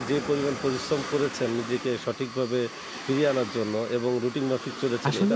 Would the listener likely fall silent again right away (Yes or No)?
No